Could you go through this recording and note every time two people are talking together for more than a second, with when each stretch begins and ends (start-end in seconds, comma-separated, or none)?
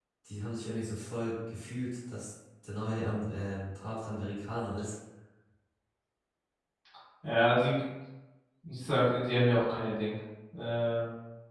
none